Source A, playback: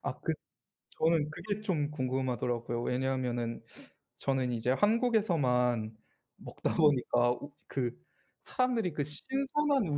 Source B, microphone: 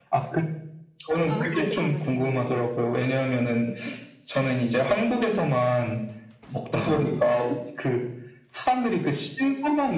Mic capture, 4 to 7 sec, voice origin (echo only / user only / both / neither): echo only